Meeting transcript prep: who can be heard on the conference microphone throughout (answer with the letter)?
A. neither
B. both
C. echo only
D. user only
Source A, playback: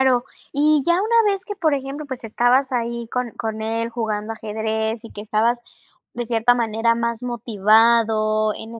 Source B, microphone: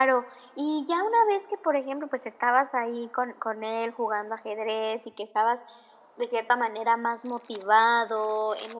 C